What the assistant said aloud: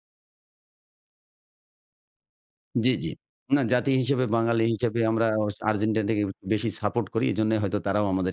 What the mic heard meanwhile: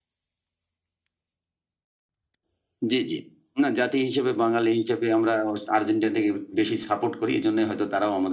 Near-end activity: none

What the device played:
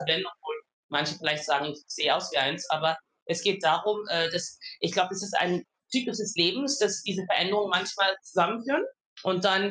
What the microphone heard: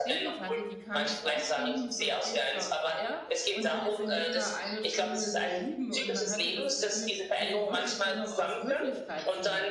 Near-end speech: present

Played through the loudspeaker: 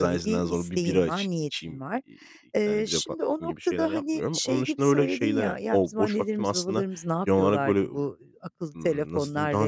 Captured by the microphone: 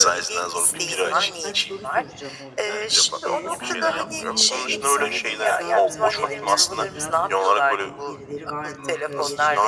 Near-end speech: present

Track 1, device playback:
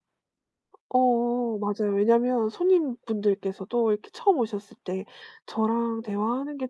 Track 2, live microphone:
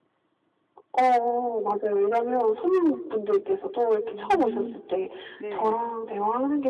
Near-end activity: present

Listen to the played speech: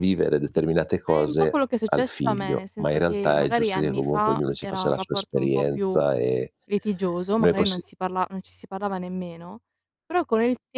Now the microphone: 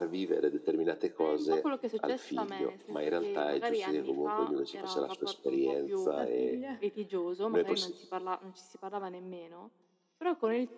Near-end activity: present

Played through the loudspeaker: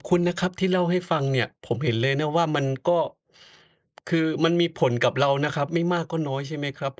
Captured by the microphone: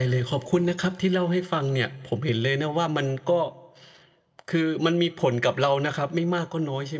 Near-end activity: none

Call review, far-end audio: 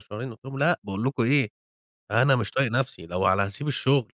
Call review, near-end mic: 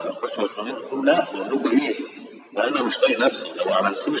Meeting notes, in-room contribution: none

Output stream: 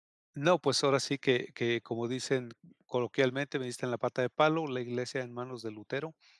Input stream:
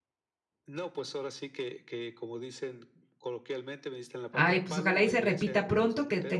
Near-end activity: present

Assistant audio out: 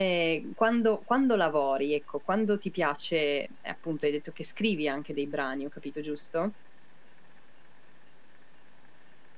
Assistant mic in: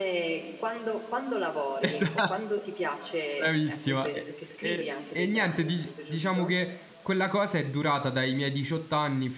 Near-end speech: present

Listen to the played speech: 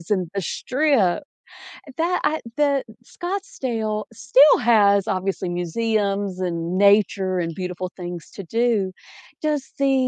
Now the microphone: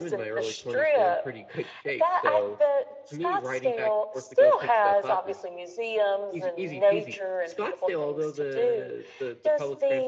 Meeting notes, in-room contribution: present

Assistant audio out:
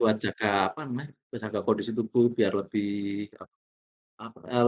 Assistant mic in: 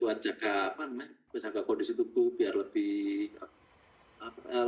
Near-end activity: none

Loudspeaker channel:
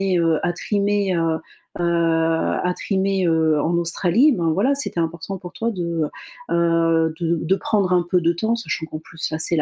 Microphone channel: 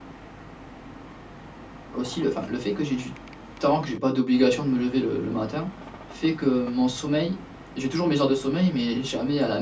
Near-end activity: present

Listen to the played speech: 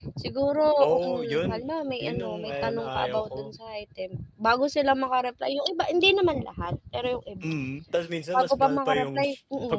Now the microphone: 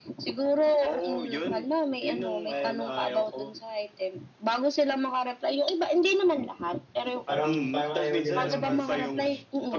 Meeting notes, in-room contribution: present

